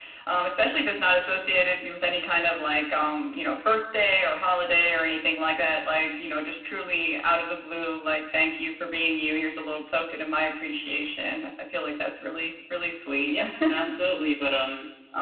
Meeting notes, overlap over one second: none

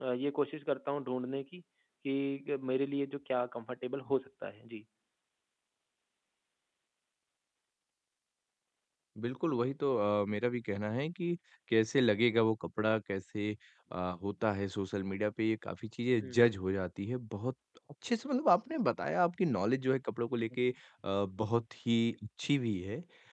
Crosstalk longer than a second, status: none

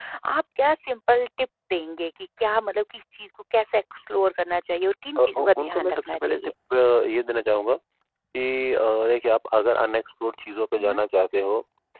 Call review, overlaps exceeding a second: present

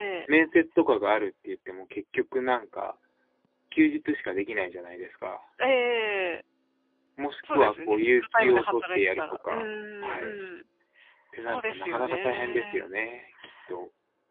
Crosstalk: present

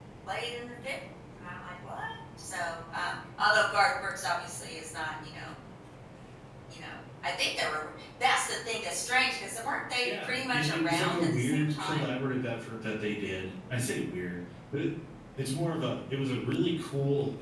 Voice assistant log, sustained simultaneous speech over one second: present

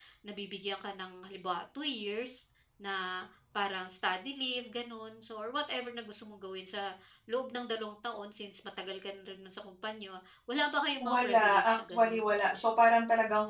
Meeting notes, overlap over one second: present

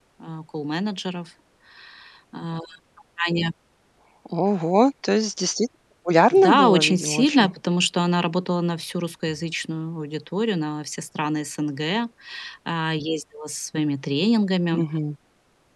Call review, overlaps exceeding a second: present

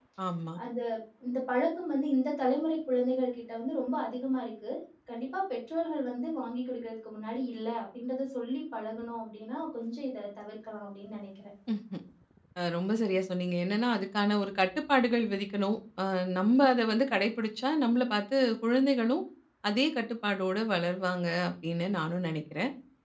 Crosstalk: none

